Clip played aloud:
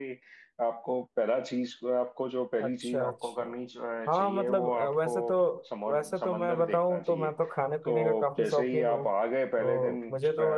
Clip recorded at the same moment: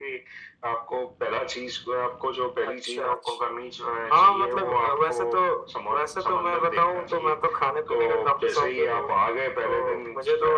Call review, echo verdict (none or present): present